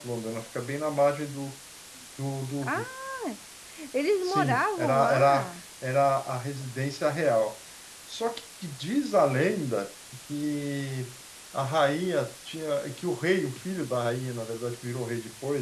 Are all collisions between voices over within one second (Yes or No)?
No